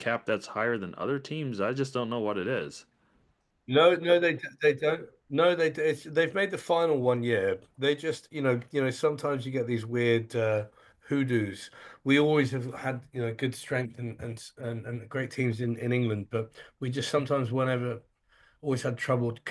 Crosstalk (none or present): none